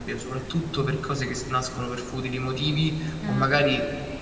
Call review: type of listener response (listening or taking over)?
listening